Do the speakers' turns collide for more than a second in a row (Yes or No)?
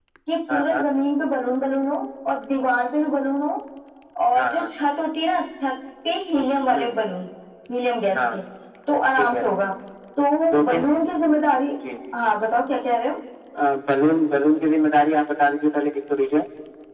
No